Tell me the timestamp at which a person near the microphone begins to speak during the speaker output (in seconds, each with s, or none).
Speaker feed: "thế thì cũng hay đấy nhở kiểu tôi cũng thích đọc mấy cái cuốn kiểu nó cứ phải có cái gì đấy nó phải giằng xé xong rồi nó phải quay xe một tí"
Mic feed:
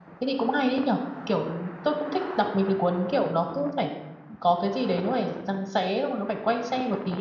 none